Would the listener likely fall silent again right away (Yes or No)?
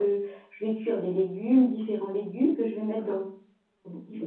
Yes